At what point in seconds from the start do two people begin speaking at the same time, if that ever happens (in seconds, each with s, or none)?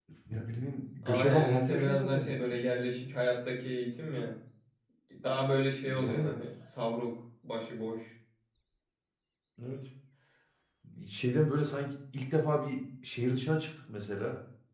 1.0 s